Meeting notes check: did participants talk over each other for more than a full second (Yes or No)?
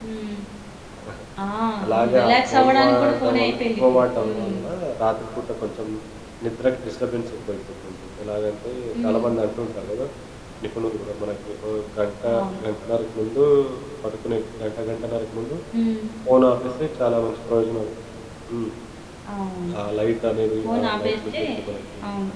Yes